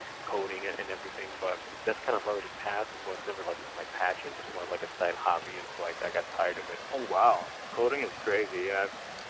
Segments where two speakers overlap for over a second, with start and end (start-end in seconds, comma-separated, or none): none